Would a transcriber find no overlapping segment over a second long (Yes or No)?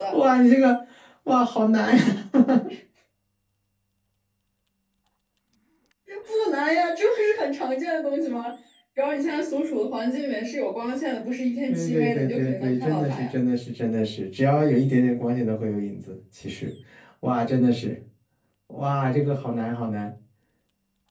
No